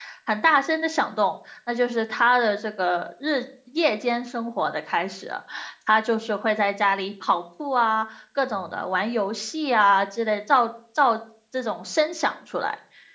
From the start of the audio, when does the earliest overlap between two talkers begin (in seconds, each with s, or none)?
none